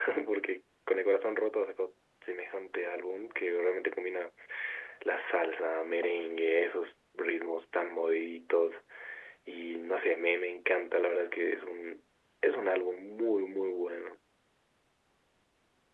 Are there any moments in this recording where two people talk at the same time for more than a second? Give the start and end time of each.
none

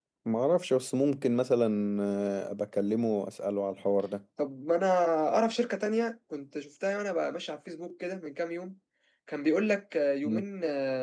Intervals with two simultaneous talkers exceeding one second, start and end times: none

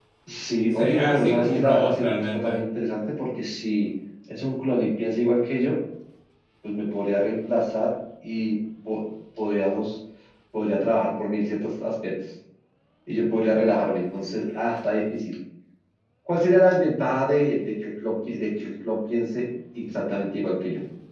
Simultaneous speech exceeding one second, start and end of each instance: 0.7-2.6

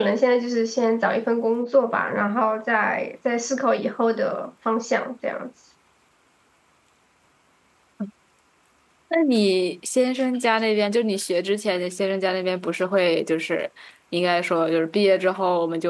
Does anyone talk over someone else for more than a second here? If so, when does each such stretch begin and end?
none

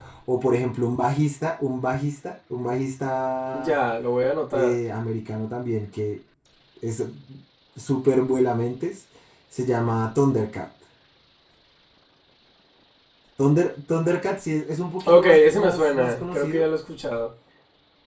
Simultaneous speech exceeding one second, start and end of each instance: 15.1-16.7

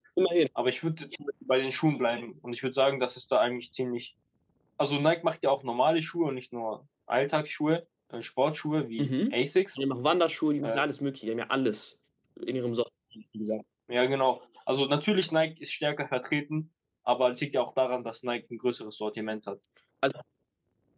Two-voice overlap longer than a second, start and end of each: none

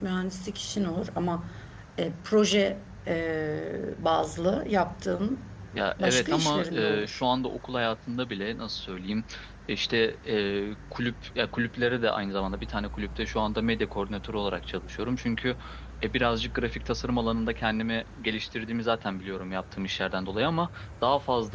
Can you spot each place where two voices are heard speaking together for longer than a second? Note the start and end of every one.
6.0-7.2

